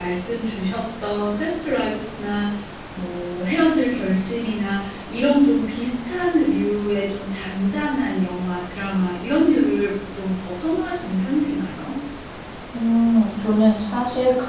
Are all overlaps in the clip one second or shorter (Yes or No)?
Yes